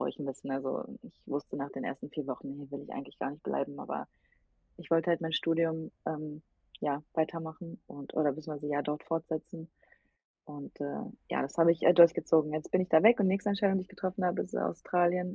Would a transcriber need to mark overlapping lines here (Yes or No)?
No